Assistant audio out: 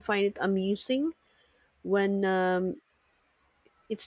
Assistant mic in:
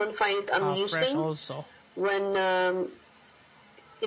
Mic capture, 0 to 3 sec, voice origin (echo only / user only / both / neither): both